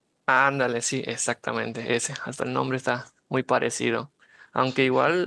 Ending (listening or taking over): listening